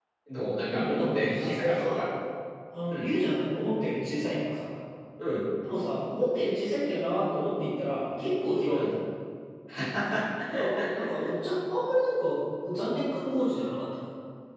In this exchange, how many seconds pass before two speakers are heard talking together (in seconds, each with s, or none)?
0.7 s